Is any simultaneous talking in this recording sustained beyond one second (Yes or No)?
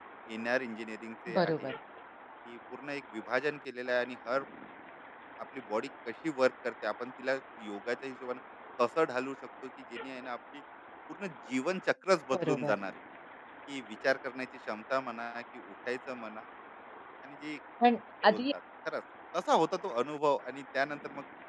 No